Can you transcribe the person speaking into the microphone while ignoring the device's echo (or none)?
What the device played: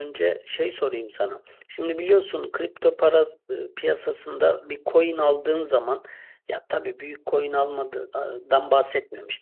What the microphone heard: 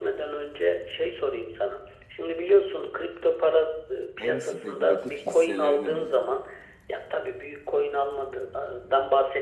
en spekülatif hisselerini buldum.